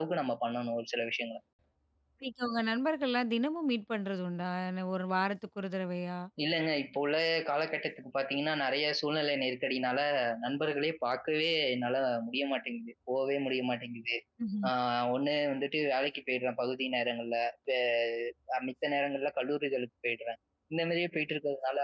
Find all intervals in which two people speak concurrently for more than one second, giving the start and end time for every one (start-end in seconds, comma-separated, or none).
none